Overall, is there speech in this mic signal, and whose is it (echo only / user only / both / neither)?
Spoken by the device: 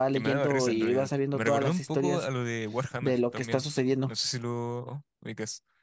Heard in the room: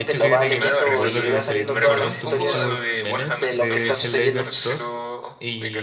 both